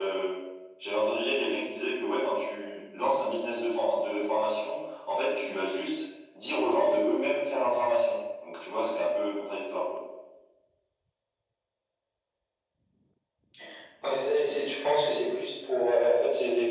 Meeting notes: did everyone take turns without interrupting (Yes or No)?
Yes